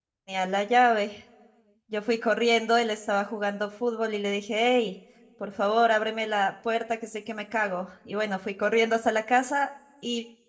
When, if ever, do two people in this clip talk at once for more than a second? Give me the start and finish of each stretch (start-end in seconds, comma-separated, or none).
none